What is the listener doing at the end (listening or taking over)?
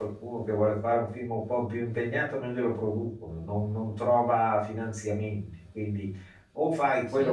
listening